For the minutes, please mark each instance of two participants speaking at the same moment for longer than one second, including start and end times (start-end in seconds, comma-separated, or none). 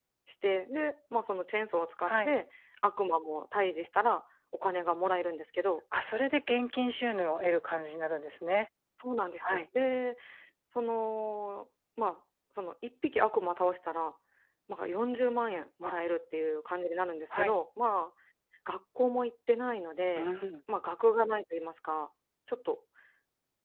none